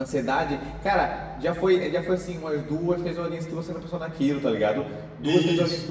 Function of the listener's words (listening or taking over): listening